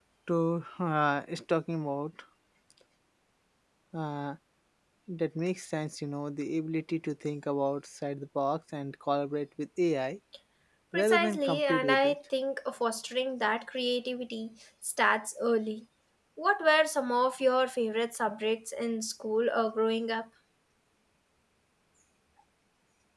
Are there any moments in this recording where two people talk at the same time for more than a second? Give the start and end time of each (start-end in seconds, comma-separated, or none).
10.9-12.2